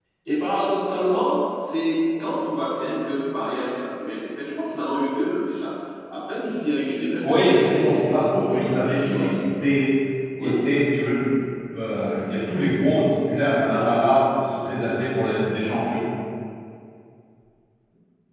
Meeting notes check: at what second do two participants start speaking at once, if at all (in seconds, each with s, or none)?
7.2 s